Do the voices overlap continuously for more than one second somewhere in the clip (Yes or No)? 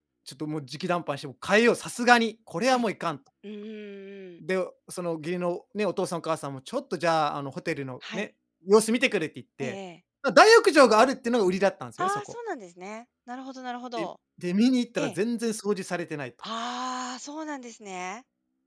No